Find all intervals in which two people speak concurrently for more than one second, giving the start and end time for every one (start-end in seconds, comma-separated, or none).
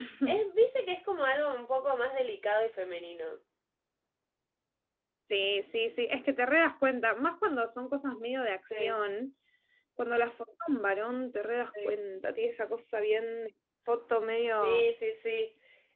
none